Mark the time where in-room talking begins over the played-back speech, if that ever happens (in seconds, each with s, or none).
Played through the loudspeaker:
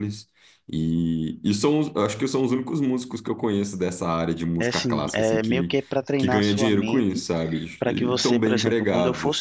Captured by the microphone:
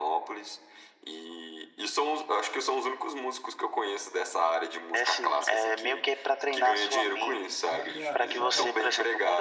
7.6 s